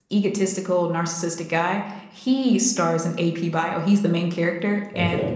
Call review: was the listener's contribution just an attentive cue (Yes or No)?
Yes